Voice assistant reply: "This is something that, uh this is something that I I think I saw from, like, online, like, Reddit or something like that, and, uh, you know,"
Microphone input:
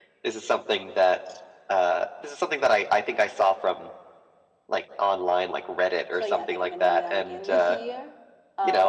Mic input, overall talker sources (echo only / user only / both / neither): both